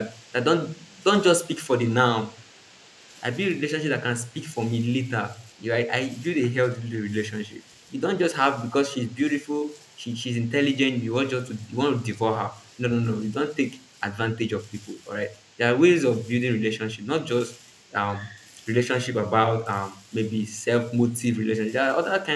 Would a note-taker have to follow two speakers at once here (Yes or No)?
No